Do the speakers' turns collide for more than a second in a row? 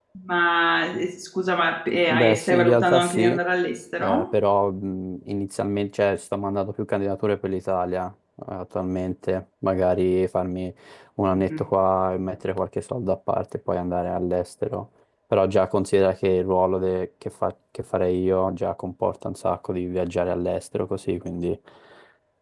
Yes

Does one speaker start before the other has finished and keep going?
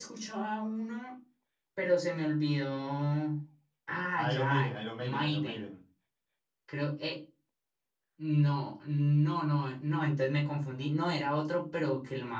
Yes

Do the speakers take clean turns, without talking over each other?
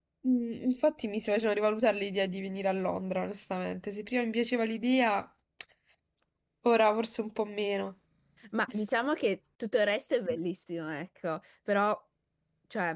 Yes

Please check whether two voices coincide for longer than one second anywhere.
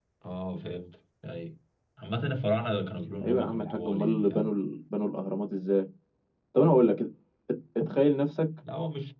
Yes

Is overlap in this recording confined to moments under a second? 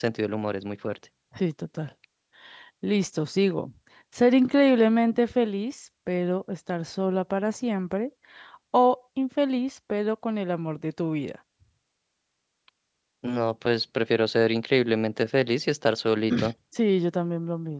Yes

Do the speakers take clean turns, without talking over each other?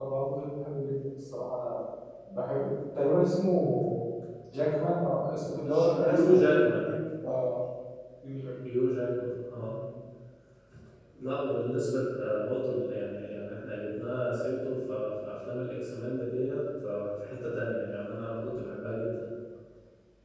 No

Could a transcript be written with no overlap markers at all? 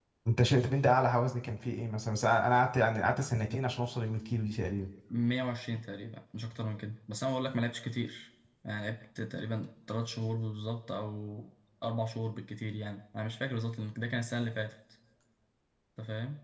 Yes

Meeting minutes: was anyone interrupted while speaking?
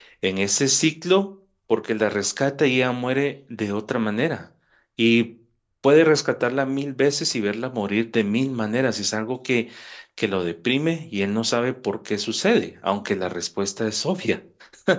No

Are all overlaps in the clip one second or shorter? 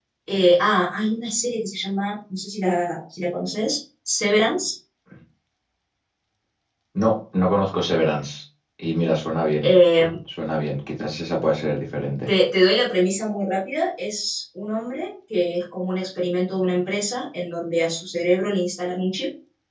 Yes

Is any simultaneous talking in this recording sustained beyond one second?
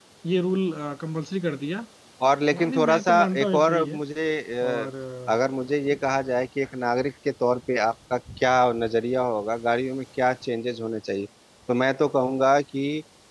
Yes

